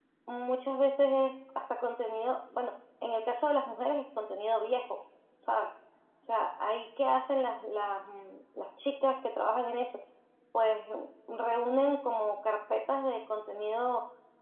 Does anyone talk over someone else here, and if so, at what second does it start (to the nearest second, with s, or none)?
none